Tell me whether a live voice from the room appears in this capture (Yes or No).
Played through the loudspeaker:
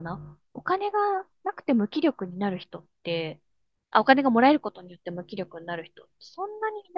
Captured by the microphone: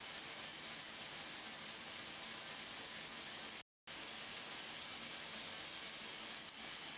No